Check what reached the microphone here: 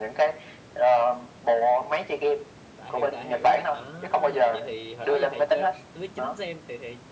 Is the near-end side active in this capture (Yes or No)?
Yes